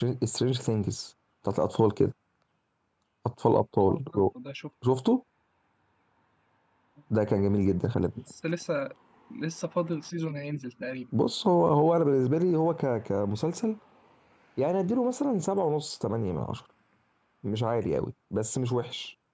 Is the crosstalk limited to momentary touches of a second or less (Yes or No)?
Yes